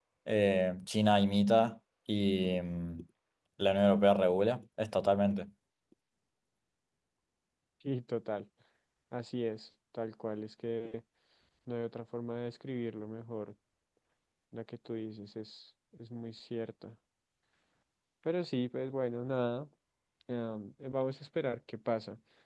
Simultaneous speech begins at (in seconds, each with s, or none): none